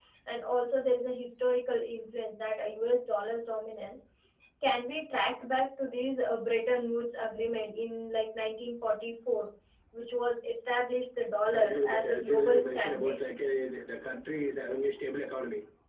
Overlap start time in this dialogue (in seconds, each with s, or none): 11.5 s